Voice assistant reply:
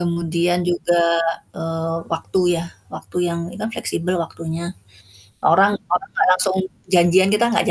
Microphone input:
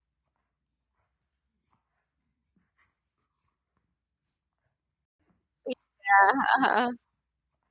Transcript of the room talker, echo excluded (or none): Iya, heeh heeh.